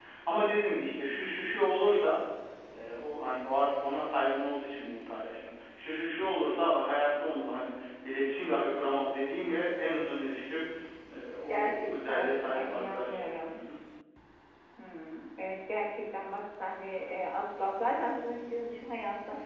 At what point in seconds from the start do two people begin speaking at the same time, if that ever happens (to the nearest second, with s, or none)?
11 s